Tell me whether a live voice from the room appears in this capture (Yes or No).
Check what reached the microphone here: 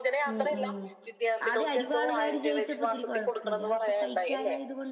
Yes